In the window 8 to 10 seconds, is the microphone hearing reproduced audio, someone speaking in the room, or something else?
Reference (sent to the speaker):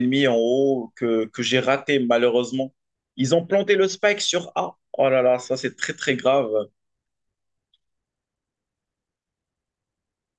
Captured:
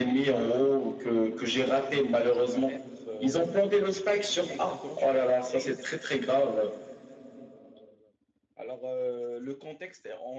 user only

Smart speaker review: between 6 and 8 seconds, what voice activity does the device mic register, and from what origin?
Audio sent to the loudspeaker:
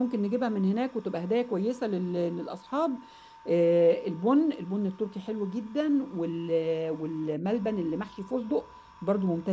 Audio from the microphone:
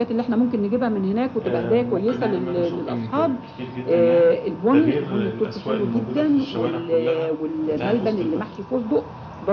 both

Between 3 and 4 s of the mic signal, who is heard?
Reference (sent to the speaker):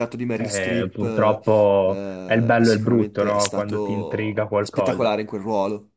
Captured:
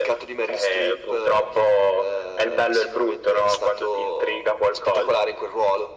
echo only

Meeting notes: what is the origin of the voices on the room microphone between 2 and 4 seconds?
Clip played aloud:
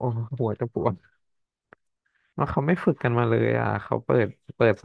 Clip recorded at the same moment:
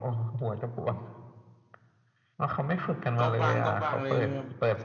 both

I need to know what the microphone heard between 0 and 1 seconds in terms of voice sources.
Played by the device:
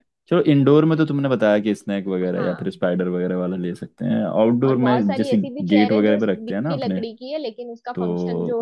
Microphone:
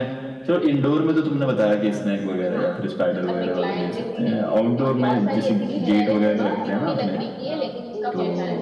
echo only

